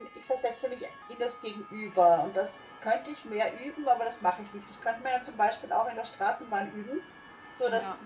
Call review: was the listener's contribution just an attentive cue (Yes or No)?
Yes